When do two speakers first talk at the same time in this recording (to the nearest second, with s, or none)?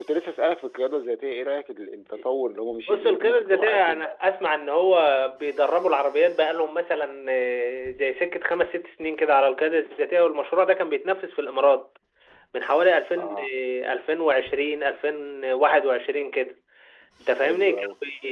3 s